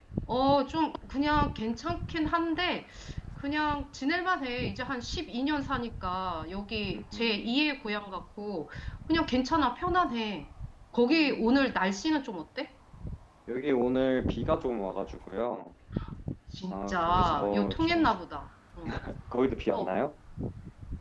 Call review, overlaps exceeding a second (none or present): present